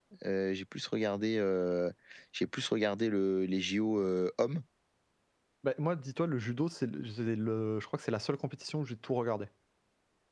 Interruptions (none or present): none